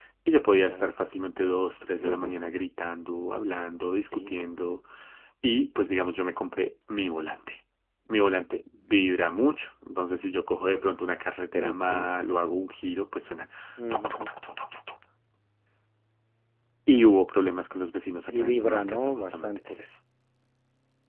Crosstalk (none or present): present